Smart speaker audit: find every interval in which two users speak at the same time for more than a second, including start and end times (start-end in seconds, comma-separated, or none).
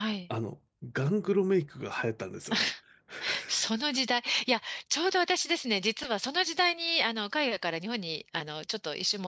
none